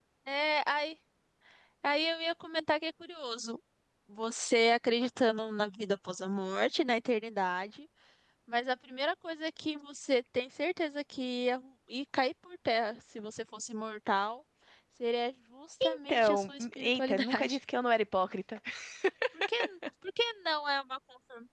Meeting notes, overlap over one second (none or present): present